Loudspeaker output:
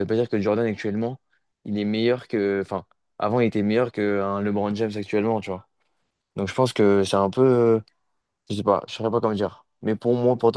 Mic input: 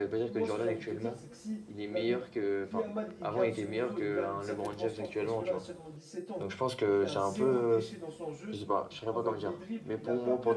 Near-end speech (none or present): present